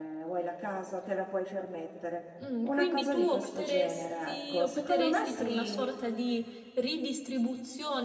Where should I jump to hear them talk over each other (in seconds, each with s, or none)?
2.4 s